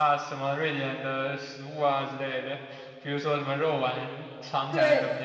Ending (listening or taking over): taking over